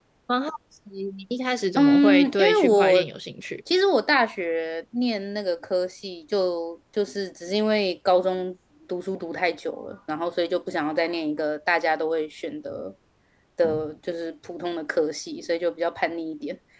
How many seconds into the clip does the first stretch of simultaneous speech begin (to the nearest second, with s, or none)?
2 s